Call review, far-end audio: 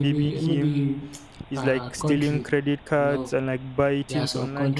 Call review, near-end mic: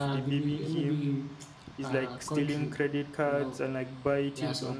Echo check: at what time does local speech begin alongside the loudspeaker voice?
none

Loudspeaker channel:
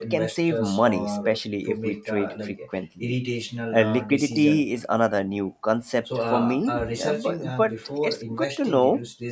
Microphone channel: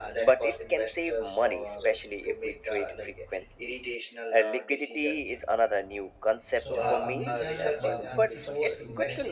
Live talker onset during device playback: 7 s

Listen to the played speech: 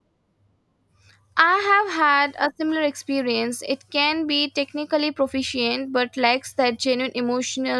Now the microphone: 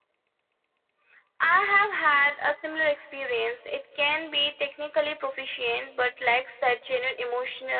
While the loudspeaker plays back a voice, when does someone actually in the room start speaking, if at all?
none

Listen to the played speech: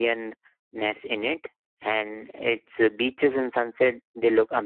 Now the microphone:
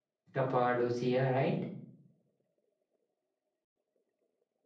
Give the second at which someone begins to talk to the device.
0 s

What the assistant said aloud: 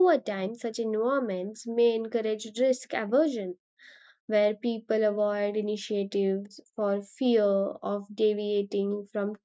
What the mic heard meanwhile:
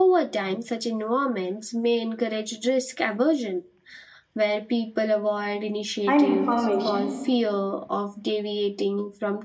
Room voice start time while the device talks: 6 s

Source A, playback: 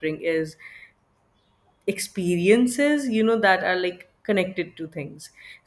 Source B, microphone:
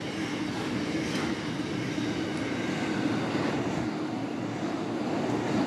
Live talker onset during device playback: none

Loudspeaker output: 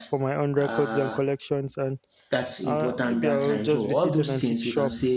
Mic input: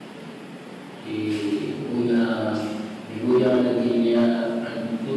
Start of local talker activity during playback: 1 s

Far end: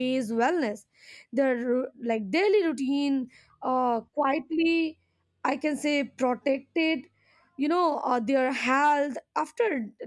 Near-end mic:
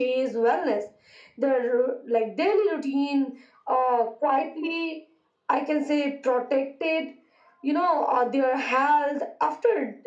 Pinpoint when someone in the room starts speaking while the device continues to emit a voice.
none

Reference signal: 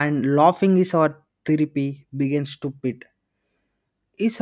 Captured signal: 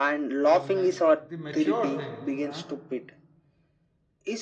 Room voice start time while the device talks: 0 s

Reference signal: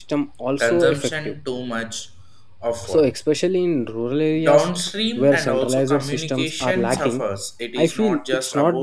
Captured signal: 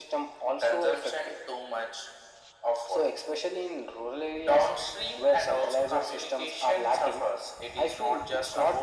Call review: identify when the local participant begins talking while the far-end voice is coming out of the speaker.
none

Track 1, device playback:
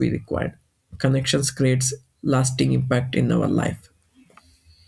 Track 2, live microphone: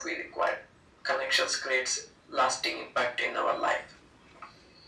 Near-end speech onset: none

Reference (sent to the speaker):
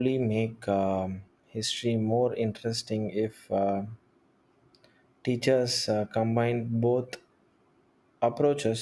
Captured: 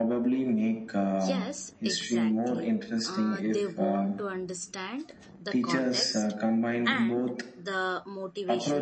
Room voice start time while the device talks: 1 s

